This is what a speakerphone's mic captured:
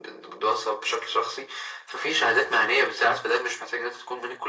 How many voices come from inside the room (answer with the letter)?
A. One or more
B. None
B